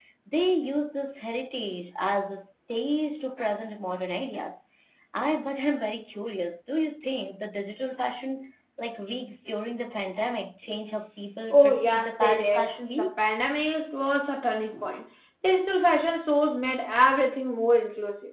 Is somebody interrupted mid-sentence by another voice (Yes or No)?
Yes